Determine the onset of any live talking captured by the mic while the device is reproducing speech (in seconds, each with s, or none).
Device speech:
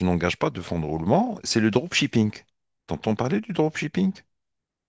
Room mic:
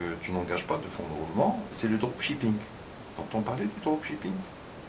none